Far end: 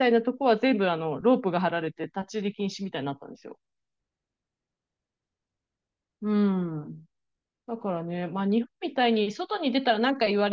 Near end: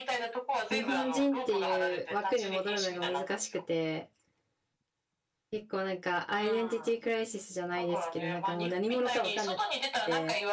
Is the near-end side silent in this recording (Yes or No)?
No